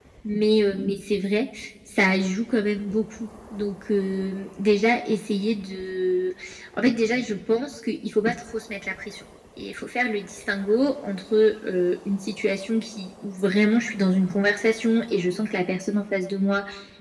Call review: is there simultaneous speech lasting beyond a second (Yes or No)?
No